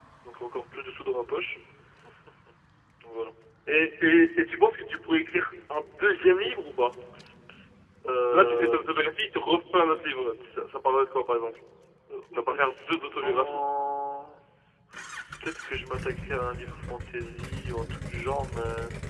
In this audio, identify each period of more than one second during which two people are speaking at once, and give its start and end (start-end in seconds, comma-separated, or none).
12.3-13.6